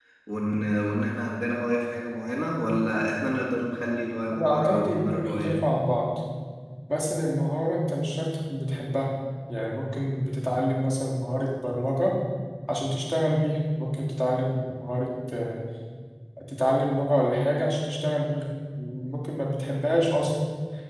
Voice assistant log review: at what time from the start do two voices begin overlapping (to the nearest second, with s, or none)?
4 s